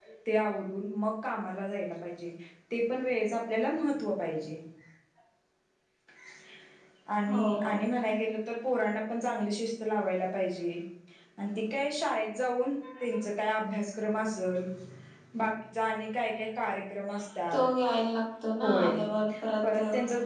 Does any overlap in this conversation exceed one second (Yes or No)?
No